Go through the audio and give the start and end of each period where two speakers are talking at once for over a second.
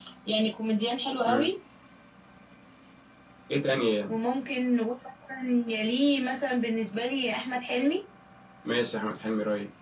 none

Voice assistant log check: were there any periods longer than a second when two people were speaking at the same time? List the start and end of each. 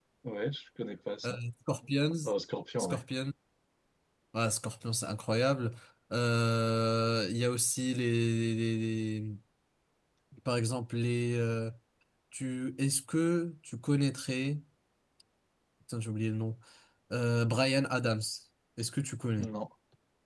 none

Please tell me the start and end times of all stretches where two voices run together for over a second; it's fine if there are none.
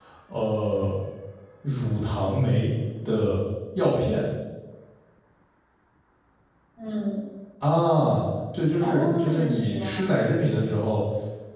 8.8-10.1

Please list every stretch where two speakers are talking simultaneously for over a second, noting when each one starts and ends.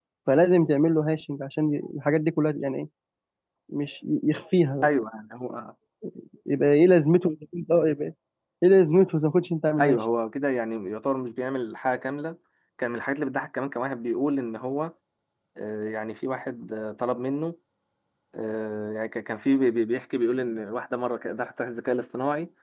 none

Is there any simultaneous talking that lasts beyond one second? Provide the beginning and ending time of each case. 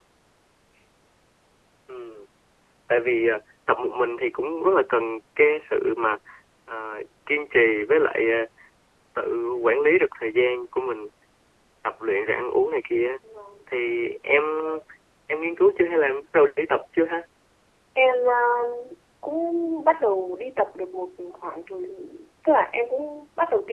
none

